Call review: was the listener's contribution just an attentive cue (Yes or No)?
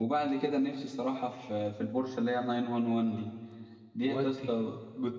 Yes